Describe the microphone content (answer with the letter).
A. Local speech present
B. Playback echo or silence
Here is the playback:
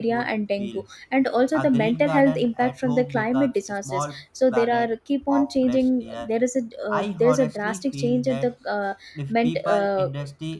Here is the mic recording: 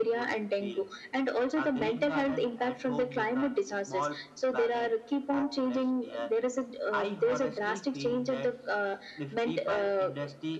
B